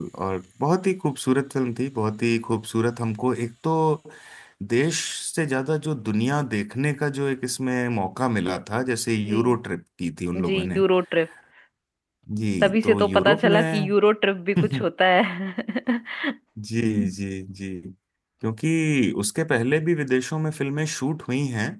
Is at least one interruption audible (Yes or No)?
Yes